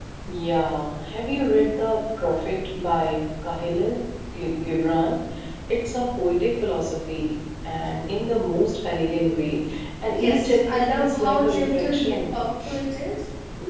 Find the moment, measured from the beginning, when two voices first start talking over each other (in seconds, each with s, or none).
10.1 s